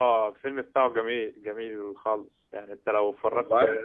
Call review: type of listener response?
listening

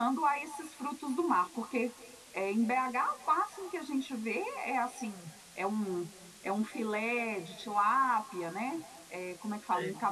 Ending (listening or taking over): listening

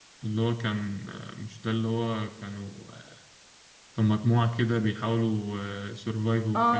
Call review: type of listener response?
taking over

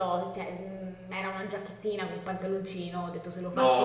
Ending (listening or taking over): listening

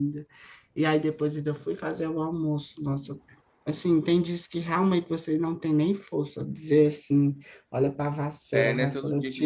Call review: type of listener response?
taking over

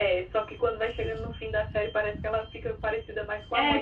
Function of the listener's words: taking over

